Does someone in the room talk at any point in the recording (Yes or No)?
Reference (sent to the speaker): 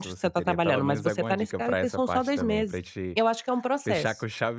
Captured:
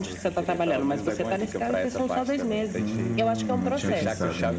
Yes